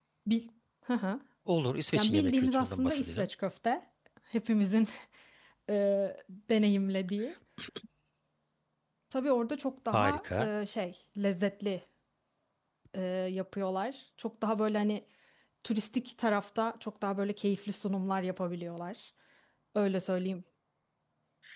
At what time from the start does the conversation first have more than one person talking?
1.9 s

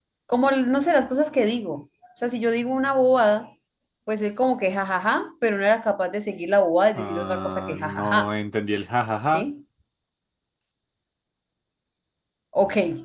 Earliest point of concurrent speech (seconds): 7.0 s

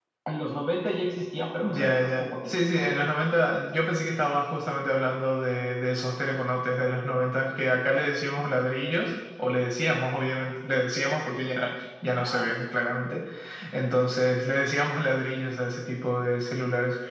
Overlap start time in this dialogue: 1.6 s

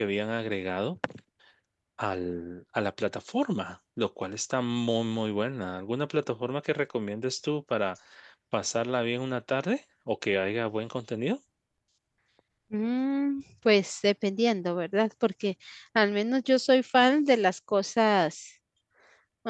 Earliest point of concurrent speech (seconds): none

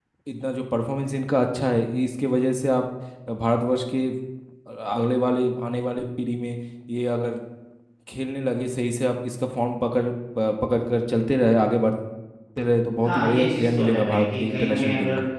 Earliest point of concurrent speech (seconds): 13.0 s

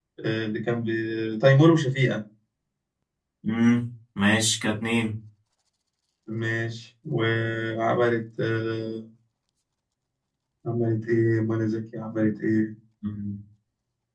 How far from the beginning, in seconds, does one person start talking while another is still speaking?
none

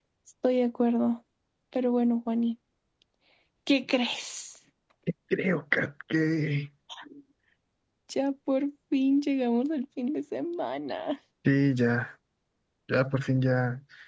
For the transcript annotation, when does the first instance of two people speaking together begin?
none

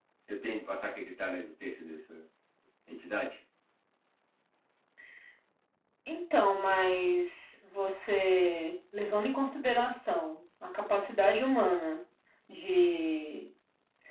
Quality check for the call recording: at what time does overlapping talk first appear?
none

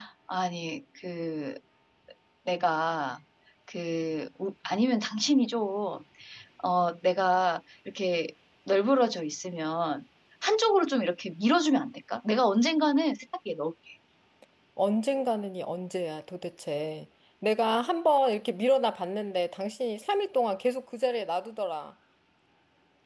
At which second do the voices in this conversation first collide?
none

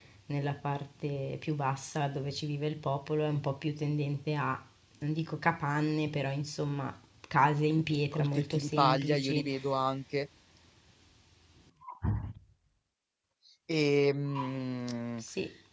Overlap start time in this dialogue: 8.1 s

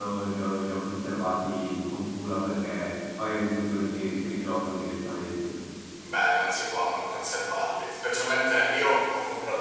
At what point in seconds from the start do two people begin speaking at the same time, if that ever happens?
none

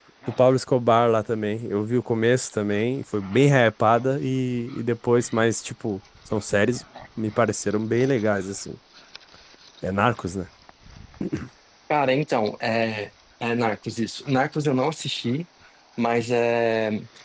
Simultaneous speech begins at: none

